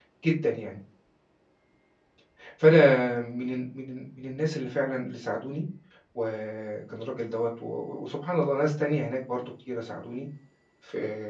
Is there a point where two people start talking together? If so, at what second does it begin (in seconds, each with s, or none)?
none